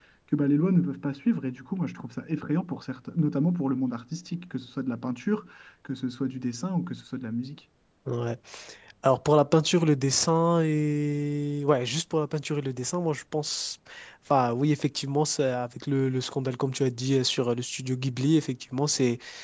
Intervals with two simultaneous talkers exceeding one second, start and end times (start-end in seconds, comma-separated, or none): none